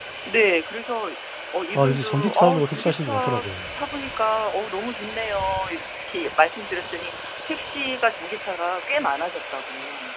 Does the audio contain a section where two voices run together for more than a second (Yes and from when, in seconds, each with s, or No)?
Yes, from 1.8 s